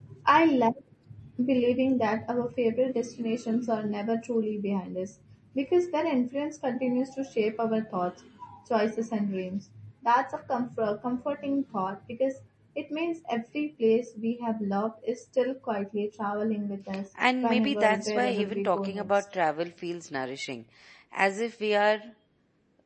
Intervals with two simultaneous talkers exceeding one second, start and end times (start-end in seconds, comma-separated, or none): 17.4-19.1